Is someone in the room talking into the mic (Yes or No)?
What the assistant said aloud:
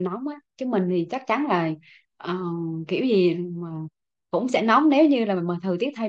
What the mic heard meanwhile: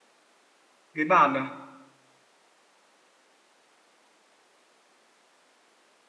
Yes